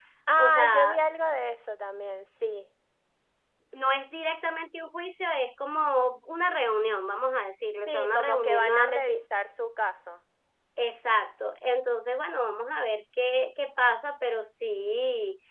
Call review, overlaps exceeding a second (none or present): present